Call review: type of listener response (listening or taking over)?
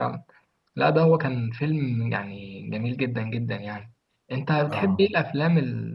listening